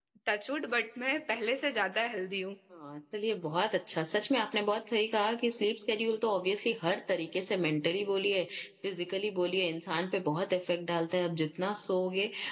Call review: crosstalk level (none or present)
none